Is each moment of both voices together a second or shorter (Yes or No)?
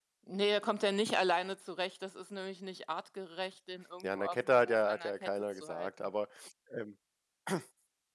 No